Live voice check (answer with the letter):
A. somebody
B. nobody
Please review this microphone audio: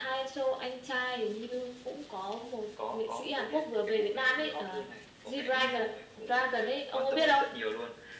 B